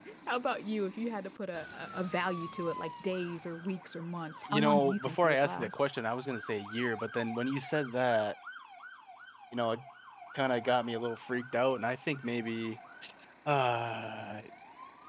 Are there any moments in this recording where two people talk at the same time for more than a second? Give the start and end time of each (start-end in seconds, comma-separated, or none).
4.5-5.8